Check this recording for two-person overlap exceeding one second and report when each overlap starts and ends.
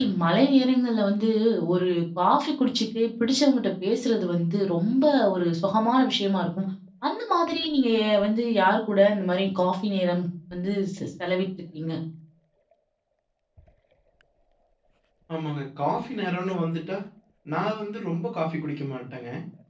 none

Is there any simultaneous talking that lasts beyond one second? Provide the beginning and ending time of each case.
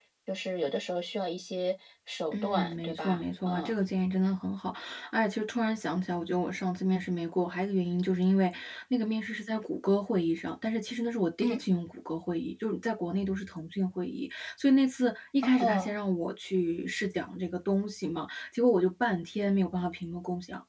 2.3-3.7

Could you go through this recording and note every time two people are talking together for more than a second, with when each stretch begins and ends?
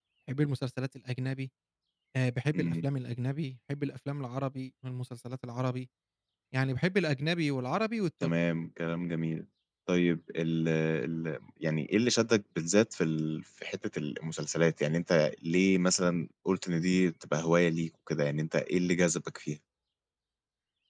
none

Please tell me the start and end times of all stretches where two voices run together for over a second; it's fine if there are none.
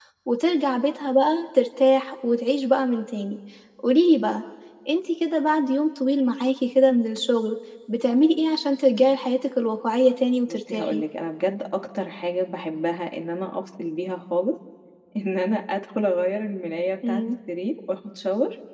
none

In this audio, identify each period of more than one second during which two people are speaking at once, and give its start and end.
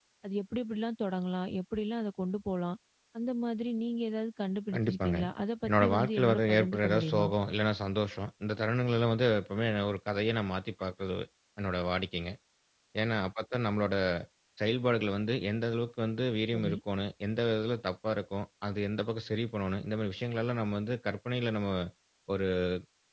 5.7-7.2

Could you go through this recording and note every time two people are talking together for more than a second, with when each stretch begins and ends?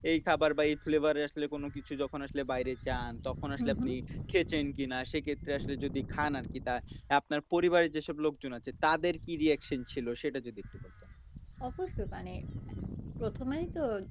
none

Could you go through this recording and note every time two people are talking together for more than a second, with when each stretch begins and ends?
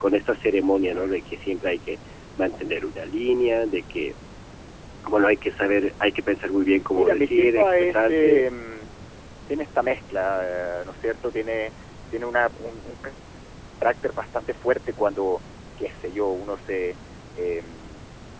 6.9-8.5

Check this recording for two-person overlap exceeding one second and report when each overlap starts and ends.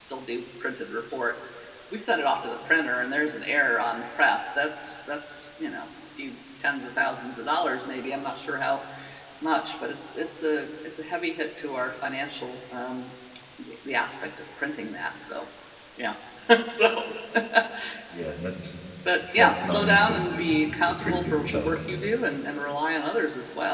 19.4-21.8

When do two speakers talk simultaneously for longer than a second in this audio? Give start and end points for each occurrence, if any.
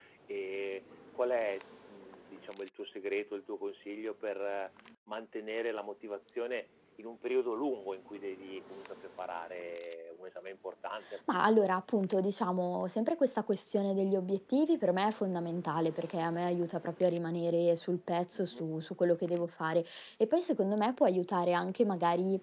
none

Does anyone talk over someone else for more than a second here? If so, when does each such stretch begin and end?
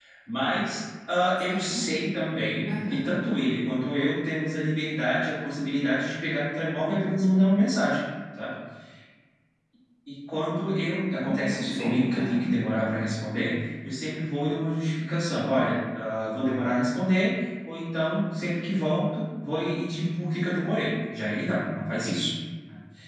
11.2-12.4

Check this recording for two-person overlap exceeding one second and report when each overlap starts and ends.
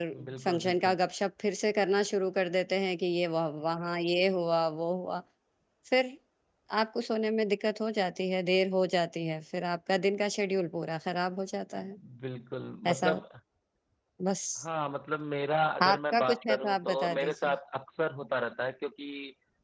15.8-17.6

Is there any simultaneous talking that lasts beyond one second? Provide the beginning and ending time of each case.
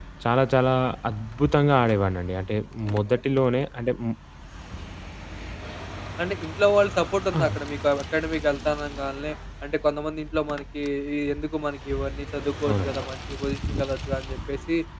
none

